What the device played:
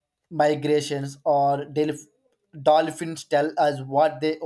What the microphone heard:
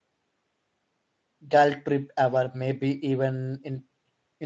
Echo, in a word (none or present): none